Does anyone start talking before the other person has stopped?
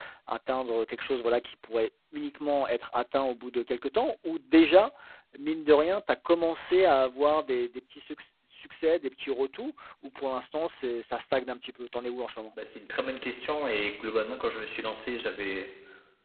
No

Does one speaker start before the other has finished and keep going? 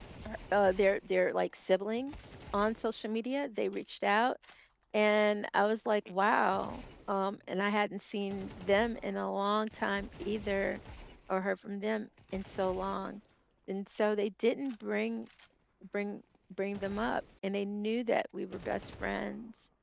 No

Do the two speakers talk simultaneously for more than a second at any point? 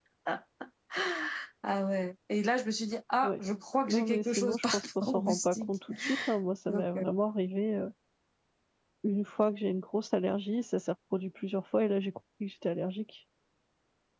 Yes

